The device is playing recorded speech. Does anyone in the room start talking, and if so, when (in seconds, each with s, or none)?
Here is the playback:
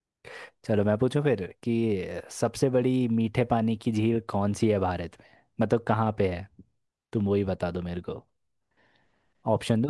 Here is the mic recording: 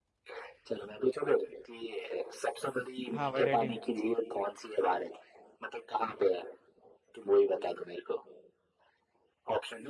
3.1 s